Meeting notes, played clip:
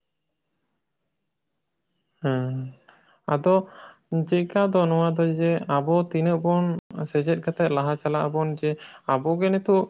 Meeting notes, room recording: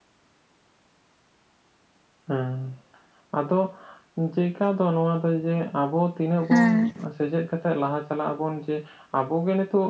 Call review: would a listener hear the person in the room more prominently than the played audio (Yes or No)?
Yes